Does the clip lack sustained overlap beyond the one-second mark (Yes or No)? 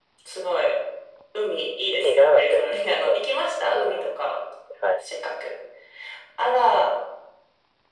No